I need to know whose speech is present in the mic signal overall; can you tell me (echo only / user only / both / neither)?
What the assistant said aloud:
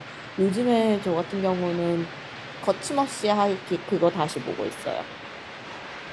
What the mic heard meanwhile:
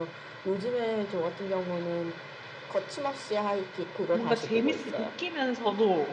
both